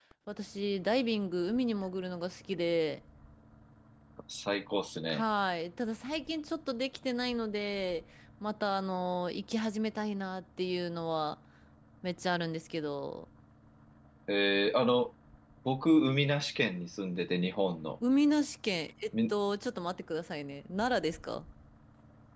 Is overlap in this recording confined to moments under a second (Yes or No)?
Yes